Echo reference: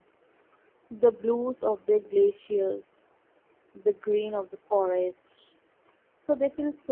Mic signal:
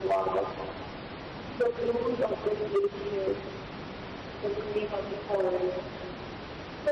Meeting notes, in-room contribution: none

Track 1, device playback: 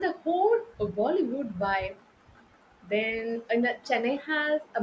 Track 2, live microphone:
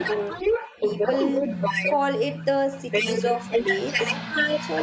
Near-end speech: present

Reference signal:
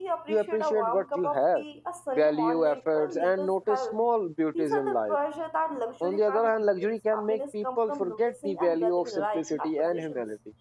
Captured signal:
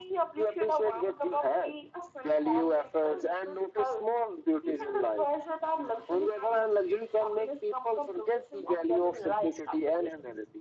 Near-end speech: none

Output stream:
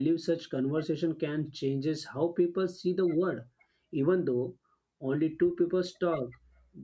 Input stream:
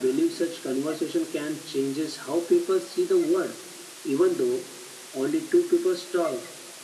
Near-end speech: none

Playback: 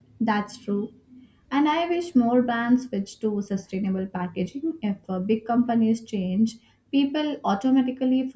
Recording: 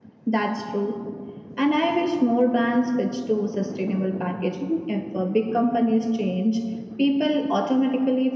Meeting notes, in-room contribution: none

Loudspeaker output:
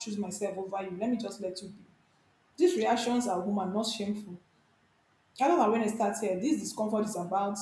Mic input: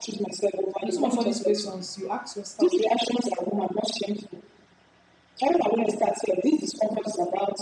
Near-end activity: present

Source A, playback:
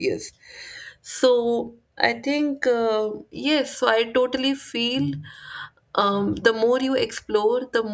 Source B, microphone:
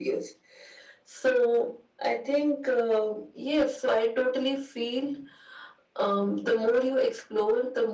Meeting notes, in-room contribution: none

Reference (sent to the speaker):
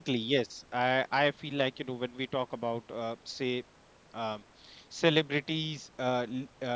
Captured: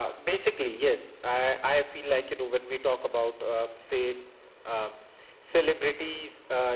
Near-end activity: none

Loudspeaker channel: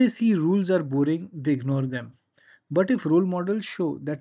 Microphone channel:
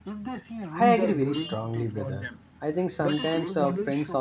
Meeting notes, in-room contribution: present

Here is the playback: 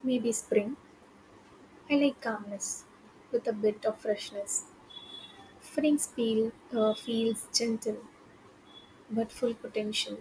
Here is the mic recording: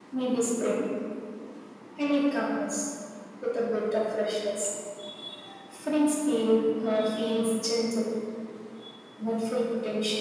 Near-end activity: none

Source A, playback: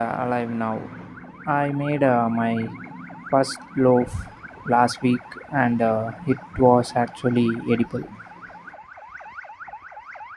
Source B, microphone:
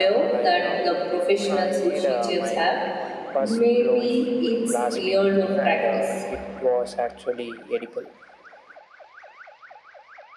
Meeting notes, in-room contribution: present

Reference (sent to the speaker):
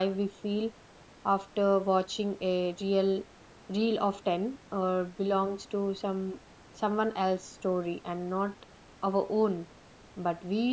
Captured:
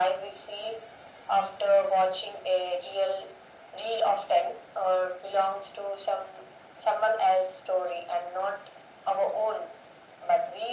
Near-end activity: none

